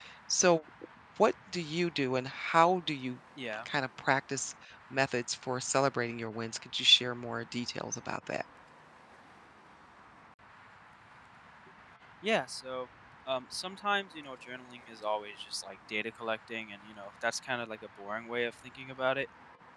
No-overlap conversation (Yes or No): Yes